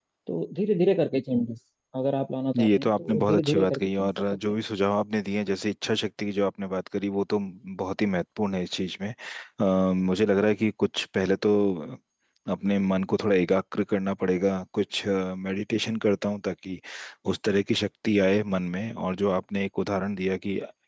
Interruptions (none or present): present